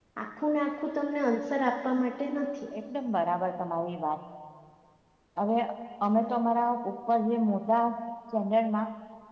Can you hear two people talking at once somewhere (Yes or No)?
No